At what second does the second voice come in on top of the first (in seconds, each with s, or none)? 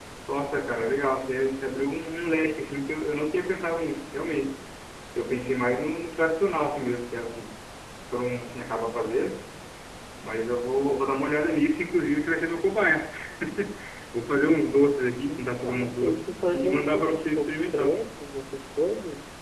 15.2 s